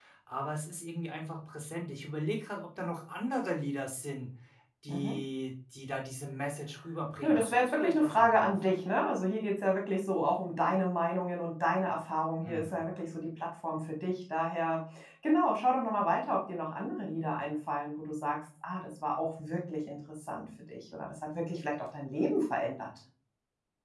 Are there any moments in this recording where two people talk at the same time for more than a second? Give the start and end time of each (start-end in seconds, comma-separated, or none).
7.2-8.5